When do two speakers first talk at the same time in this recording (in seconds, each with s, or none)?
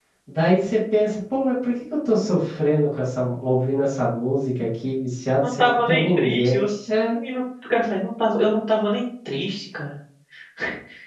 5.4 s